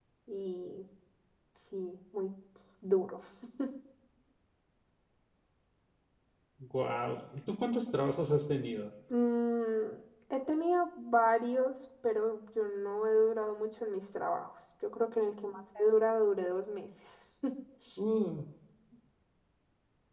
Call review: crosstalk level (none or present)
none